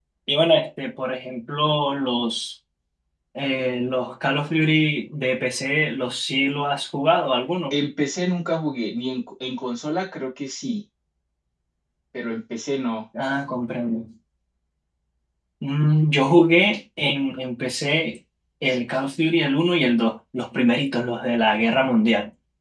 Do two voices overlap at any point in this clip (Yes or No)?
No